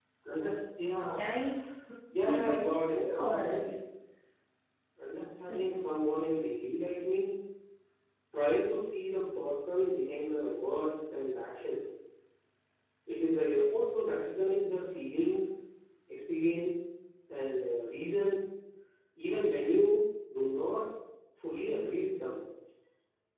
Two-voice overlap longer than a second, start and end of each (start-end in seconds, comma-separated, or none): 2.2-3.7